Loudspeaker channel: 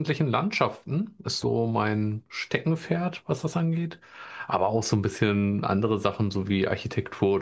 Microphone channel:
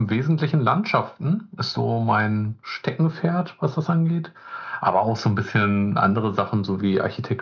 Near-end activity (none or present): none